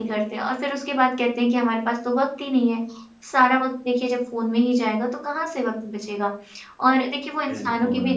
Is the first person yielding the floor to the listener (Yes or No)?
No